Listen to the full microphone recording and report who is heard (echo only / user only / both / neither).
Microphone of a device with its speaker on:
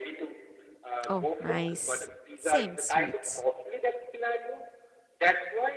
both